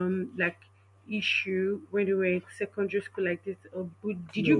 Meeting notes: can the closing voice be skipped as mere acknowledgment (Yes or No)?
No